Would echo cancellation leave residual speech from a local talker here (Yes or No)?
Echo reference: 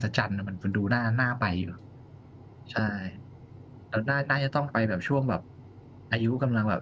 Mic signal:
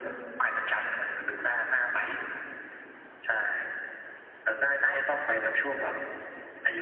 Yes